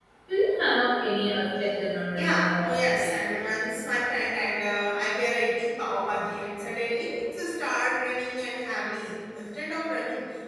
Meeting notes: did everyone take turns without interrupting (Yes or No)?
No